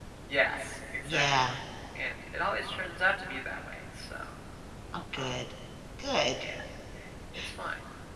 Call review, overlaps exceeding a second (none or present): none